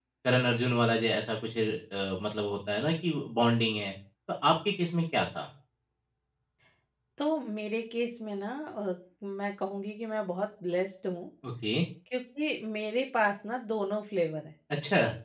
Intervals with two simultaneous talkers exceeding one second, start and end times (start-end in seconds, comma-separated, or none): none